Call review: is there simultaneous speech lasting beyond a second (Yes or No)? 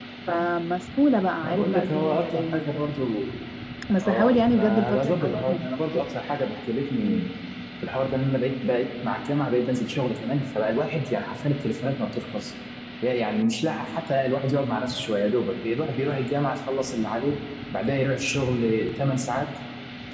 Yes